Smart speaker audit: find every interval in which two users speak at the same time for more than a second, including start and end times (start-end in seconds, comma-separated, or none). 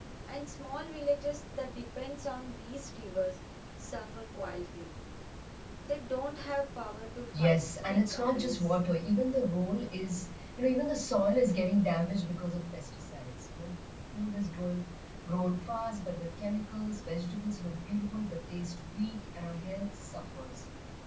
7.4-8.8